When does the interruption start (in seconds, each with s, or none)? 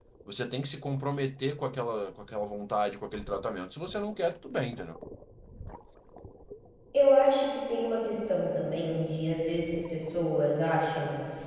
none